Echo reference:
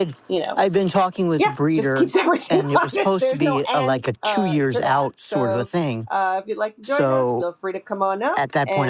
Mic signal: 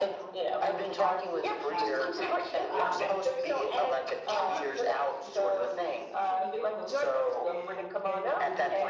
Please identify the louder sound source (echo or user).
echo